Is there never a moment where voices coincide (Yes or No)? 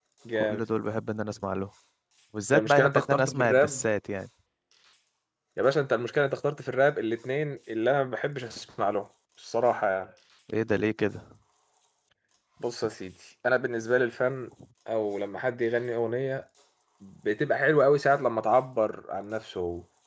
No